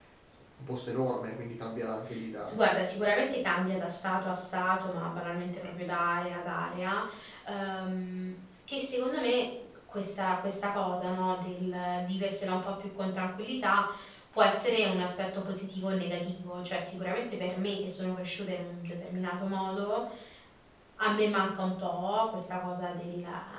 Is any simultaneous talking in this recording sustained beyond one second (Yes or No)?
No